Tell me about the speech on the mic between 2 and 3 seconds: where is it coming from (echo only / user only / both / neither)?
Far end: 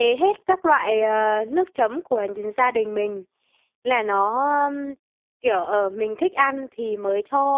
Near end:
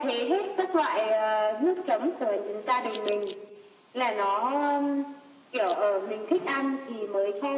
echo only